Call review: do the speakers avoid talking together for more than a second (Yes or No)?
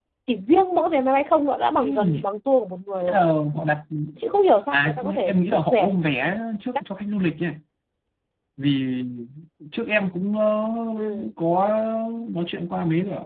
No